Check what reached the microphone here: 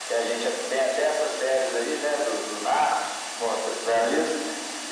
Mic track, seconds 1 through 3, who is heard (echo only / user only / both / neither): echo only